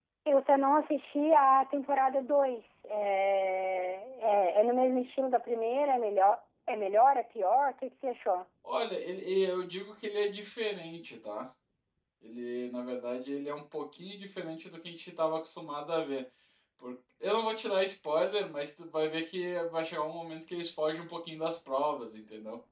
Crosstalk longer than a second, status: none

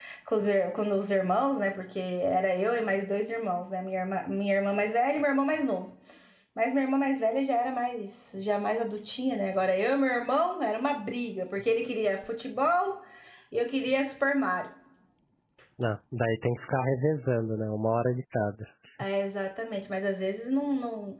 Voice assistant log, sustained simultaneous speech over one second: none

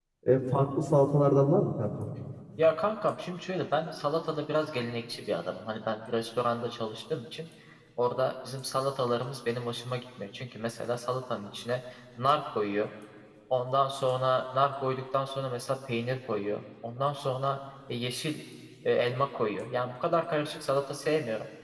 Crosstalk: none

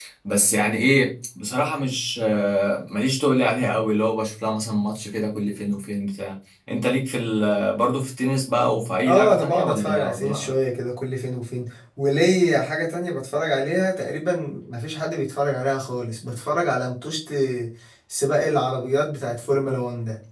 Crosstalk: present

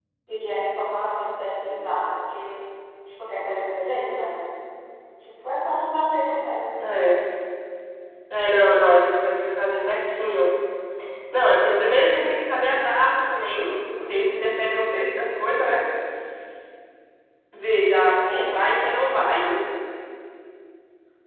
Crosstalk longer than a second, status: none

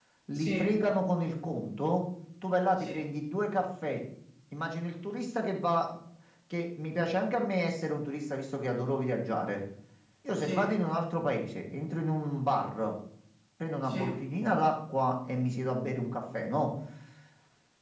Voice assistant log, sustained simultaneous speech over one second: none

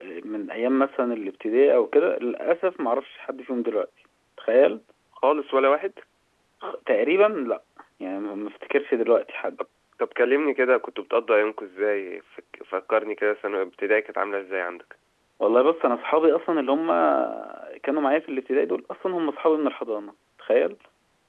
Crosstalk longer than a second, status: none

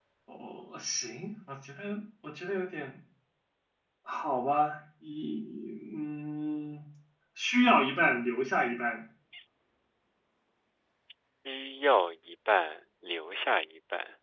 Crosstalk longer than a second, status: none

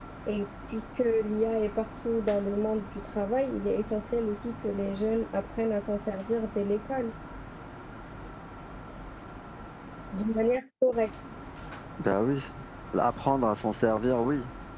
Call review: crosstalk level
none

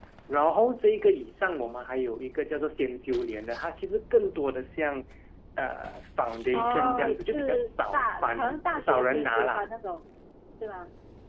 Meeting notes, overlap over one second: present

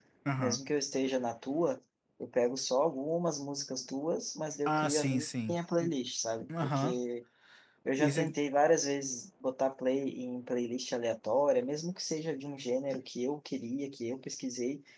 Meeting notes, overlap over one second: present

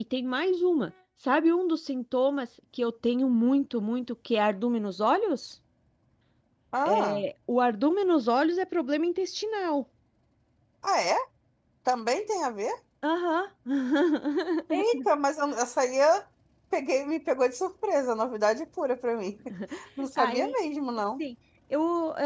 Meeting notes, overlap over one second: none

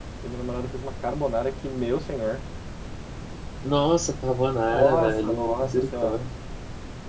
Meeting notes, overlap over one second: present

